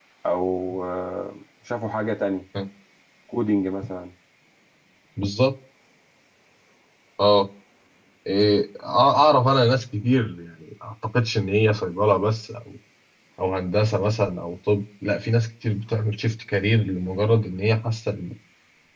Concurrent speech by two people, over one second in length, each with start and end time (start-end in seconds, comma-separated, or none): none